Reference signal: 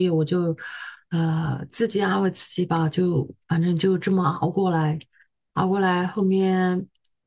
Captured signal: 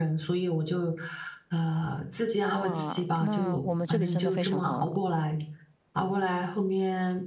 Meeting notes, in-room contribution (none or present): present